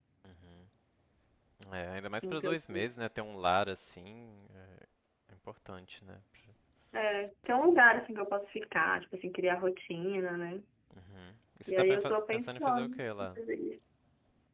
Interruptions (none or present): present